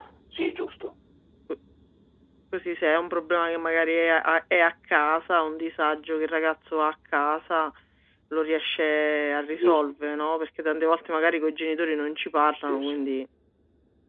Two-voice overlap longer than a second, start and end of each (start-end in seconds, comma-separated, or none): none